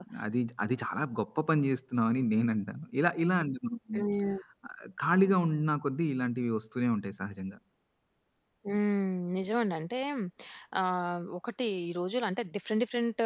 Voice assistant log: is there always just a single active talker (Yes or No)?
Yes